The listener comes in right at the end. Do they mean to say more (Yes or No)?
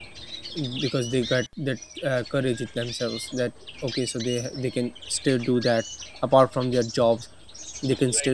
No